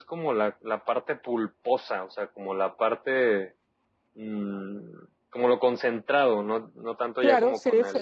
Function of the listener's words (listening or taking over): taking over